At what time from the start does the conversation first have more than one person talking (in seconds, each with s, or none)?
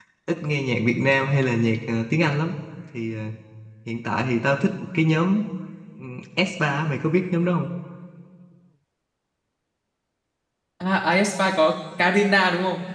none